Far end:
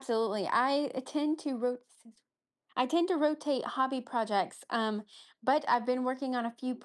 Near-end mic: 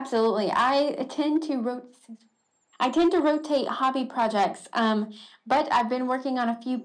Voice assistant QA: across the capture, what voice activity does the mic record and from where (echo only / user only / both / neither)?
echo only